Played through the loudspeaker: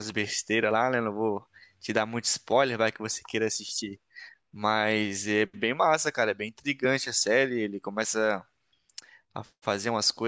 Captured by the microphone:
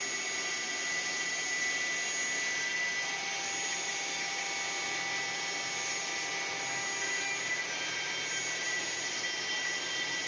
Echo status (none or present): none